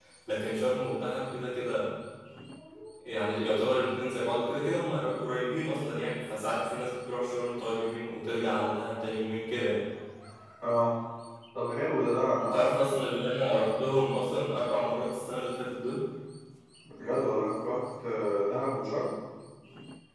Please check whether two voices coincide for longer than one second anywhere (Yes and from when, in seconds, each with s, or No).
No